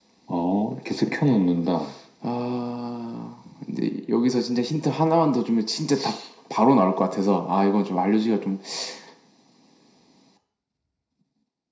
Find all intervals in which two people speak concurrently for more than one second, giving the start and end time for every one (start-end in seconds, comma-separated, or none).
none